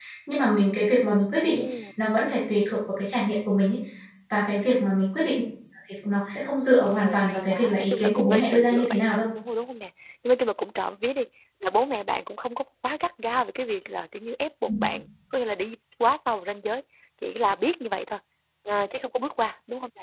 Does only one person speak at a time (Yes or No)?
No